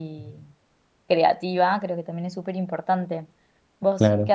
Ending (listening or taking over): taking over